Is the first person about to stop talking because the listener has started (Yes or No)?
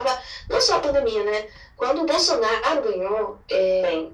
No